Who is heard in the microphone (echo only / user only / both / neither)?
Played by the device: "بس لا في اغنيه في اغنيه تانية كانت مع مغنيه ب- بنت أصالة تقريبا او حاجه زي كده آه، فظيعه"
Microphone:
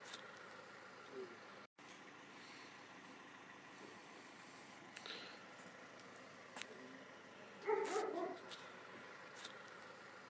neither